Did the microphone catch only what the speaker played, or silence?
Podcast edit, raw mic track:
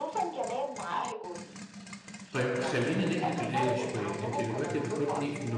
No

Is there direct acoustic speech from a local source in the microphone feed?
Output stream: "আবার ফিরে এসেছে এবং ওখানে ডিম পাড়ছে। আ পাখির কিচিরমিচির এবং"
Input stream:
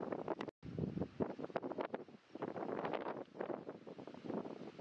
No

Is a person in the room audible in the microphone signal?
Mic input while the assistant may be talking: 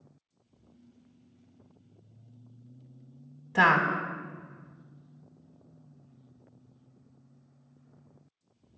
Yes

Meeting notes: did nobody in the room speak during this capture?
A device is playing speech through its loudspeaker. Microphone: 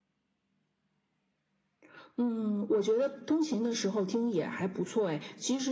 Yes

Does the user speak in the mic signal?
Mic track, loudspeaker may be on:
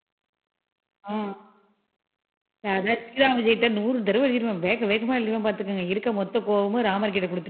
Yes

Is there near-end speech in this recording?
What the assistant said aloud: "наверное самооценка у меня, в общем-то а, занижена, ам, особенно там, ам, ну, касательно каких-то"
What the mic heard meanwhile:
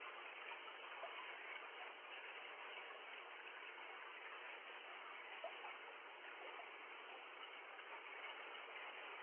No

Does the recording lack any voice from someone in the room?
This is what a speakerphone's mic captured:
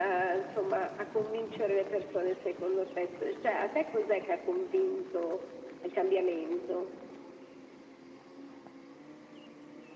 Yes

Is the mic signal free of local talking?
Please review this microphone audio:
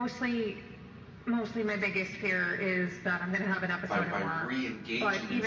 No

